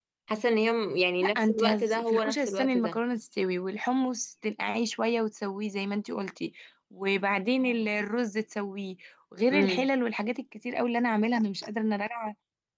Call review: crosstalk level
present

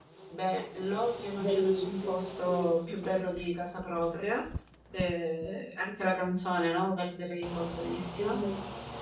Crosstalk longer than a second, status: present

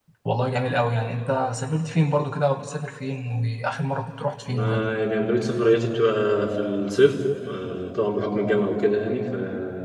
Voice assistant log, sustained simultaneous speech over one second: none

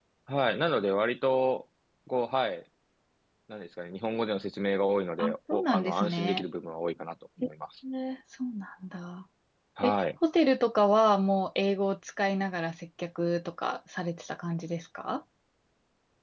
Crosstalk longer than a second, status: present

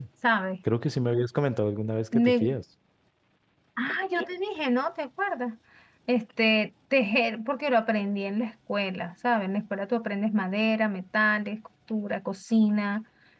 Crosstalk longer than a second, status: none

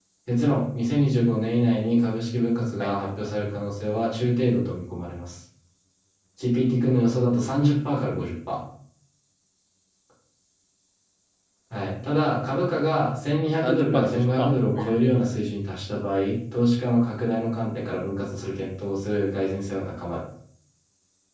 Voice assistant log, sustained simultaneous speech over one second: present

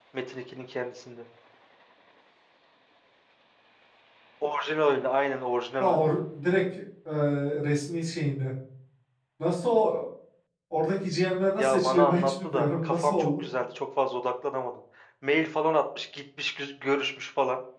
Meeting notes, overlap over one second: present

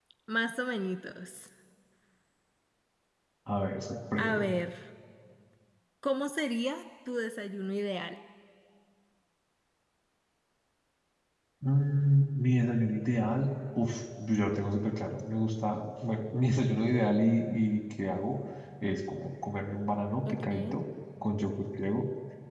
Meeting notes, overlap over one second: none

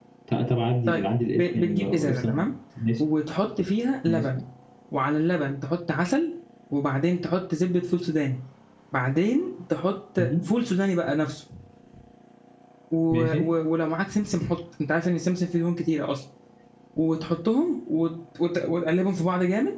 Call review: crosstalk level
present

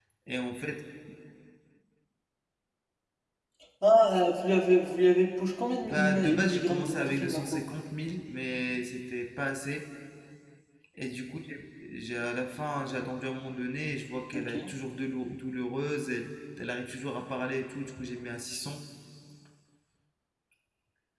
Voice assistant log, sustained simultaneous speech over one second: present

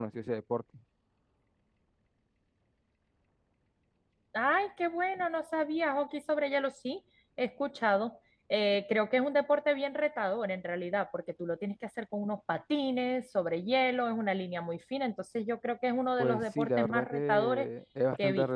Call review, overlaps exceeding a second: present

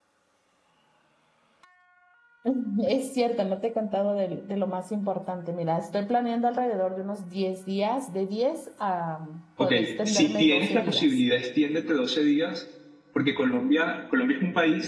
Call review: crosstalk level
present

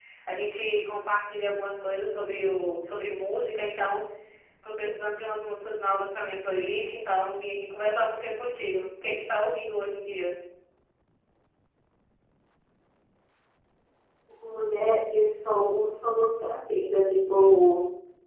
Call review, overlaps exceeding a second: none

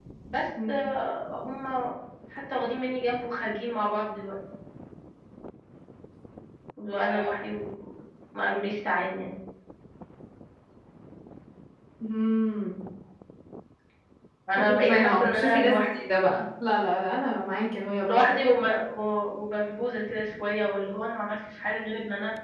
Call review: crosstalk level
present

